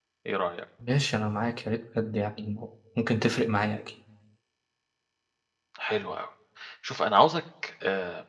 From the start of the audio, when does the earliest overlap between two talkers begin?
none

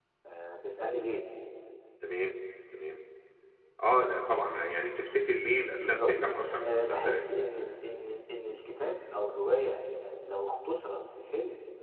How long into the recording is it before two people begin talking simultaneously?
5.8 s

